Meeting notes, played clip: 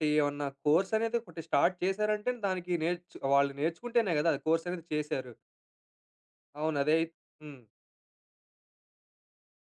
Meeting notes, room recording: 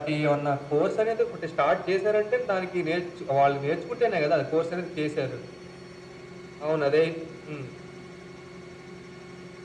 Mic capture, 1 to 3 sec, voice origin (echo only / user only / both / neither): echo only